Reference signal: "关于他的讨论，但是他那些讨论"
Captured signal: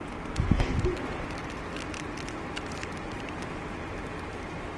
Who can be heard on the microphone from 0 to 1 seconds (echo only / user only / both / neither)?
neither